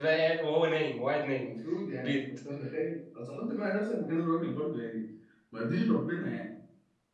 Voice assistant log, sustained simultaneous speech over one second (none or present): none